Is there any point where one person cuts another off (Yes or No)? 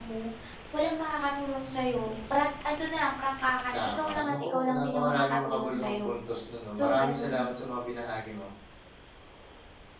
Yes